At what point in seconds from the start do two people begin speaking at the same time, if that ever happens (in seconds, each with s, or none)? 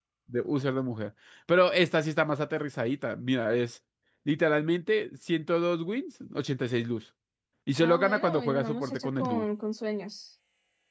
7.8 s